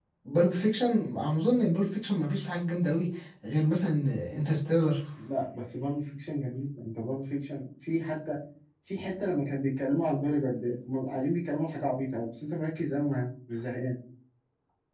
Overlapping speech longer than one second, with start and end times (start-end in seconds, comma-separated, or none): none